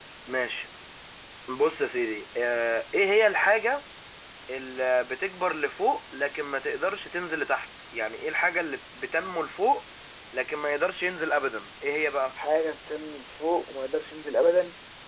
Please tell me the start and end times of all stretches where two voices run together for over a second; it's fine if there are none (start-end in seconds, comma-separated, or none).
none